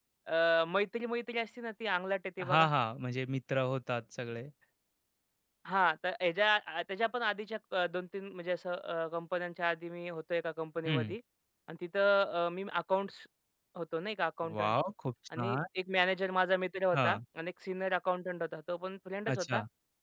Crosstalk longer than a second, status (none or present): none